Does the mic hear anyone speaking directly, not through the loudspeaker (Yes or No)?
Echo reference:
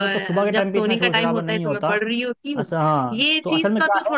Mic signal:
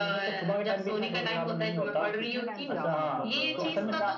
Yes